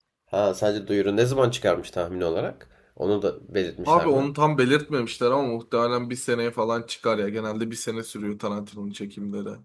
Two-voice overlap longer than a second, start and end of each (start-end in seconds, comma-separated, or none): none